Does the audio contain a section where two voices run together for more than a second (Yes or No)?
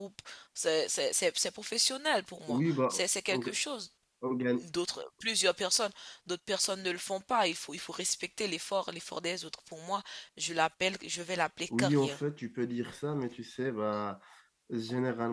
No